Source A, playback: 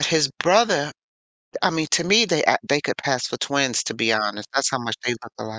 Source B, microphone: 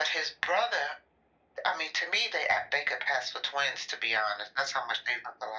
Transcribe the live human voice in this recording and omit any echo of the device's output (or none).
none